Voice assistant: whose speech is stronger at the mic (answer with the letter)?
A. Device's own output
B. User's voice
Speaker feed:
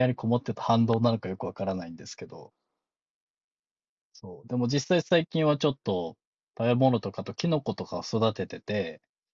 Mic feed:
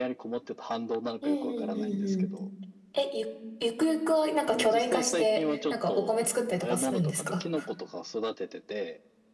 B